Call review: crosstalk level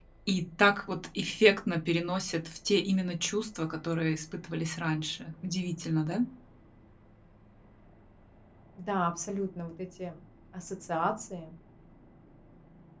none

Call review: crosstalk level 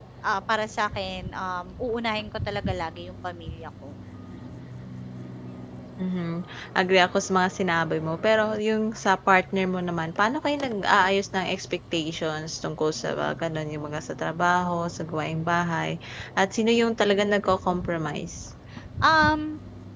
none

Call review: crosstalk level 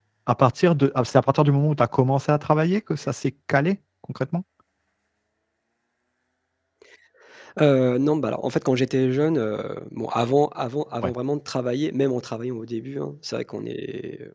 none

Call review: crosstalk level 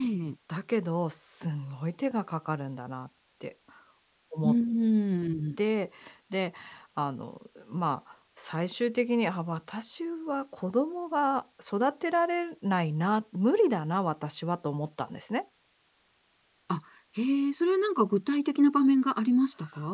none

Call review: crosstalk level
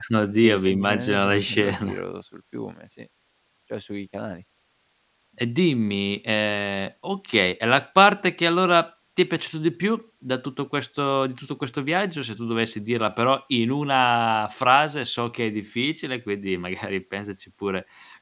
present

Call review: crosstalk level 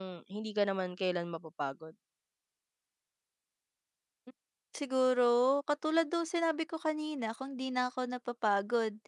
none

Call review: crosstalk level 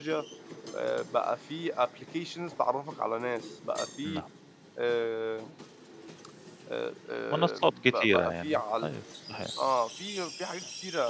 present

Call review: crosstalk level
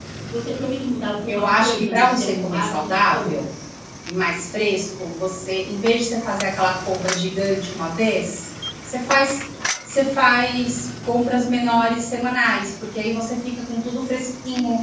present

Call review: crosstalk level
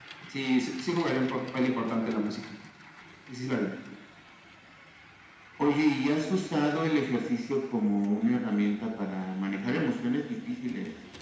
none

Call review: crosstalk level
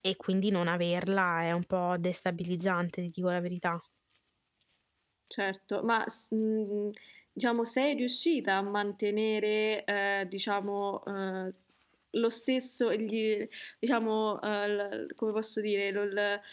none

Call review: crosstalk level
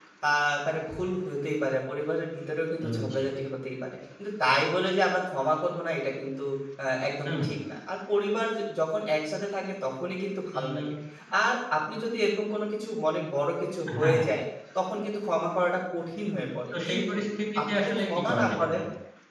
present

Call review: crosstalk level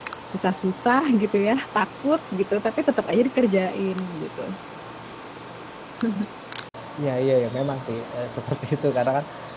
none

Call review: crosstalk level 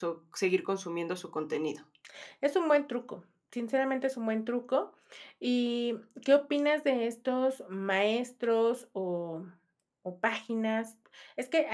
none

